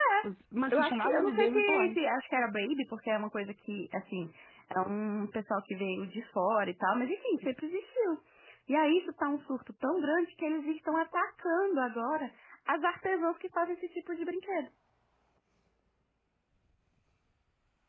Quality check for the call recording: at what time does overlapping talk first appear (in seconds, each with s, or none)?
0.7 s